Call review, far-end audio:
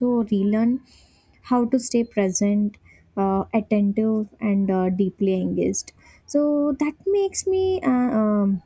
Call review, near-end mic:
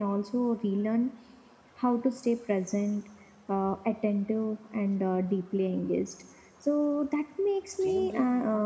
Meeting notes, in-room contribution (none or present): present